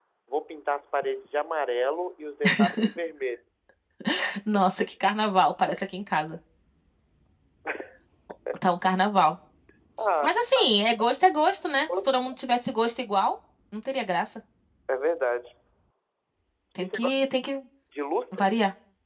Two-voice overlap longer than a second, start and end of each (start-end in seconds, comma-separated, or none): none